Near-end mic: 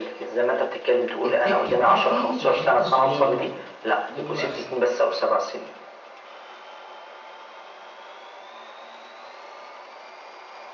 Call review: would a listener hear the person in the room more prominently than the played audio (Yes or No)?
No